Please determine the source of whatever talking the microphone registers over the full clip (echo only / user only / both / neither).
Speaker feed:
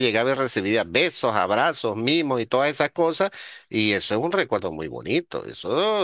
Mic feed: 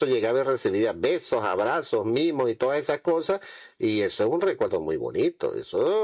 echo only